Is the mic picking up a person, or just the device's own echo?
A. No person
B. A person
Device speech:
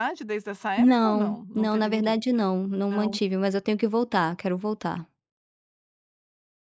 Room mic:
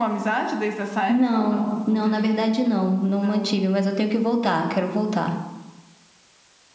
A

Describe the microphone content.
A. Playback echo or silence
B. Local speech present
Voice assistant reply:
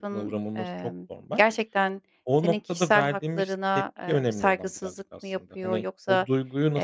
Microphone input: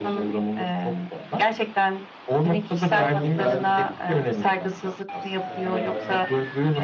B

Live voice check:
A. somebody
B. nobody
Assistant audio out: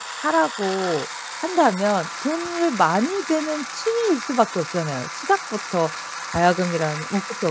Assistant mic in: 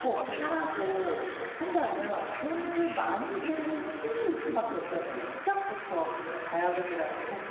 A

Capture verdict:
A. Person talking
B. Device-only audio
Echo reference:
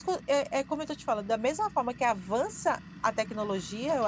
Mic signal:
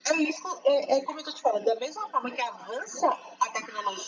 B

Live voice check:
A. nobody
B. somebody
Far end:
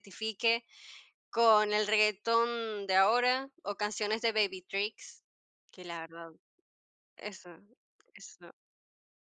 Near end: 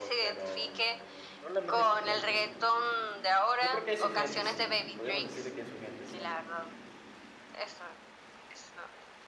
B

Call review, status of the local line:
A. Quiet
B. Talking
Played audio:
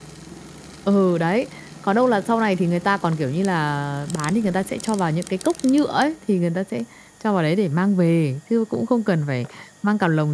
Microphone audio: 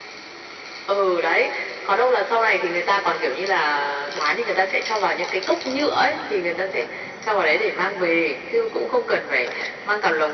A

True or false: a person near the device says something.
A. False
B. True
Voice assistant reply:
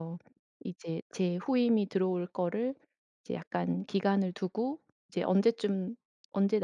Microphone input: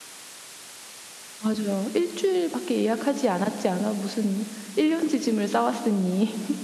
B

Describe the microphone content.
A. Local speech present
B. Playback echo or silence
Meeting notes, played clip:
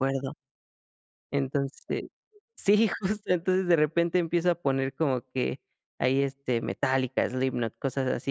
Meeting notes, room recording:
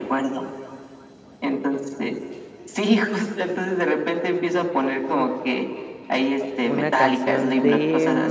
A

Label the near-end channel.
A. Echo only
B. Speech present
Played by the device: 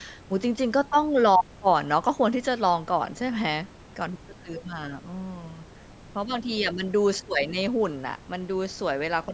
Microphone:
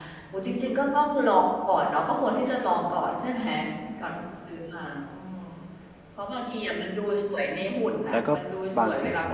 B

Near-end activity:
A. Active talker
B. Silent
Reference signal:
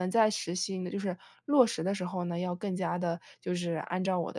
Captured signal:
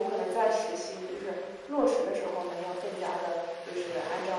B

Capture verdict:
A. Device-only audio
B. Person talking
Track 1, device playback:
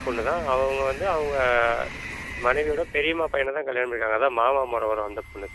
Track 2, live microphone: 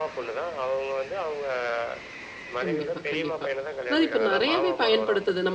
B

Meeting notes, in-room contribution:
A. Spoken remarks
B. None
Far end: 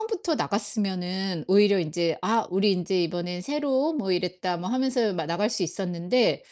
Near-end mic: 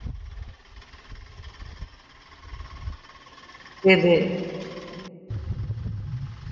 A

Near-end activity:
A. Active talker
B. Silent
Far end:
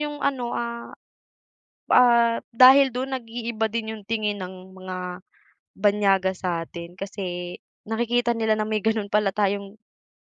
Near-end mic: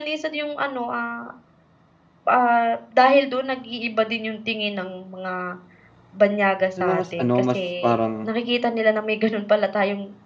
A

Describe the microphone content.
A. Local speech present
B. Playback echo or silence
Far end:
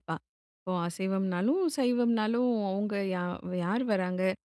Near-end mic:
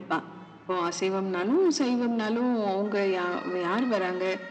B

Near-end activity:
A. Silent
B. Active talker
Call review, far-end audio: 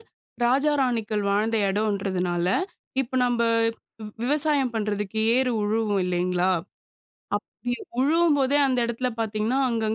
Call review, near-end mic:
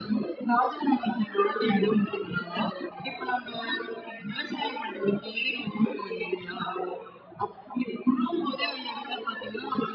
A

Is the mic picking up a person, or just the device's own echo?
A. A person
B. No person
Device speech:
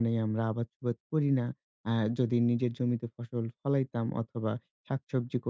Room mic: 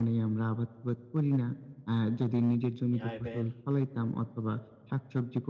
A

